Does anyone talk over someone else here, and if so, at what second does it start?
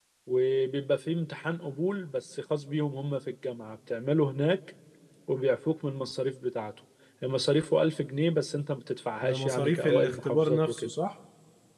9.2 s

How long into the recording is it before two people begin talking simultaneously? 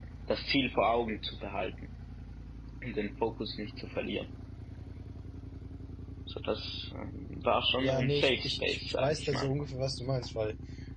7.8 s

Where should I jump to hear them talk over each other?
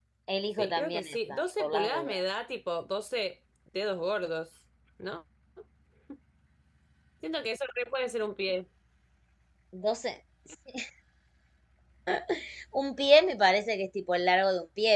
0.6 s

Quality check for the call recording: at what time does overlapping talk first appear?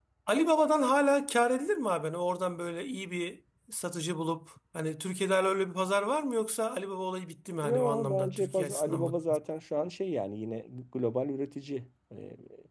7.6 s

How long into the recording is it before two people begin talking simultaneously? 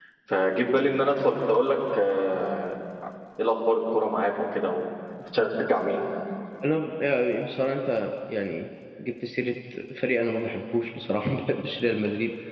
none

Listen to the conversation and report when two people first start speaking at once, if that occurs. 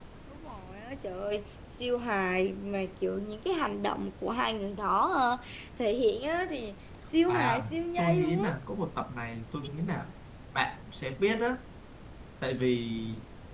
7.3 s

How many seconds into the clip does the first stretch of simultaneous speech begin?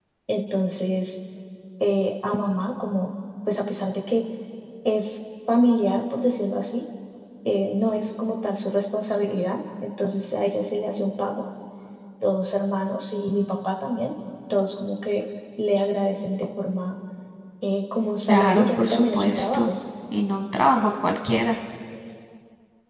18.3 s

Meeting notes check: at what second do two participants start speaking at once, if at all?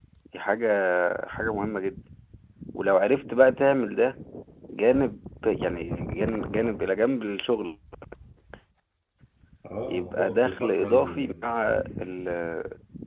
9.9 s

